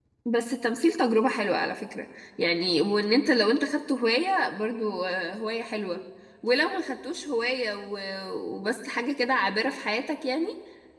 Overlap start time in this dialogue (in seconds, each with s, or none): none